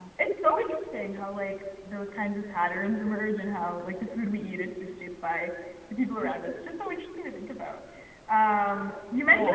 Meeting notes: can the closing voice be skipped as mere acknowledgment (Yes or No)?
Yes